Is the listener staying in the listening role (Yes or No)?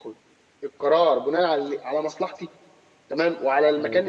Yes